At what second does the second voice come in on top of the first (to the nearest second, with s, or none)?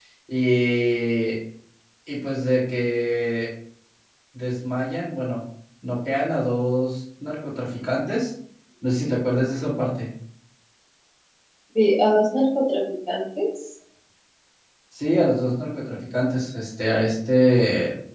none